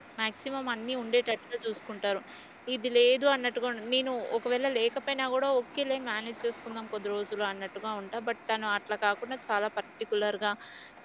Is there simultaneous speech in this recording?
No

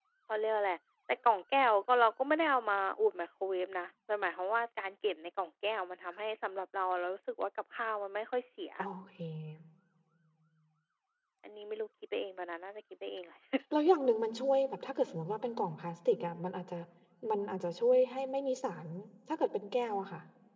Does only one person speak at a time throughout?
Yes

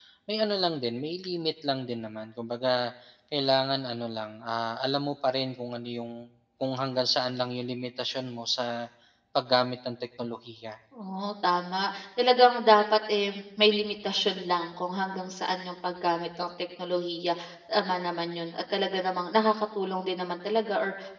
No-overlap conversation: Yes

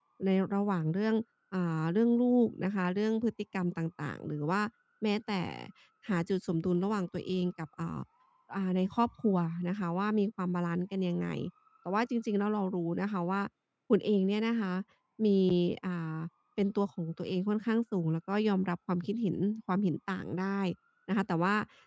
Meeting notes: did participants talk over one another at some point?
No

